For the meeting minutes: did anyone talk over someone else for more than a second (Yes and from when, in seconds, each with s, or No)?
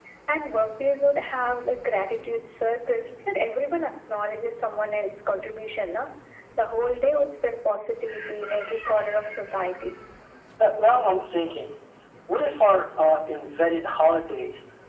No